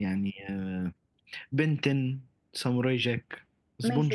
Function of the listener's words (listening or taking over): taking over